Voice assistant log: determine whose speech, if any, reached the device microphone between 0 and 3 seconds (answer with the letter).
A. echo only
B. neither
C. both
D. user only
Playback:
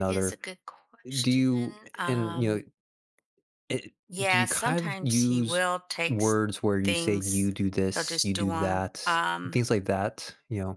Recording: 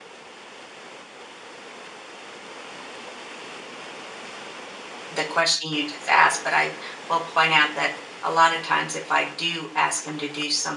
B